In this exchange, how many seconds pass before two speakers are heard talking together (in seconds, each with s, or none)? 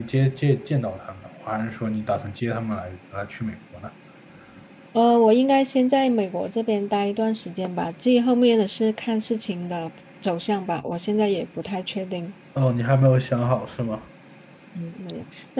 none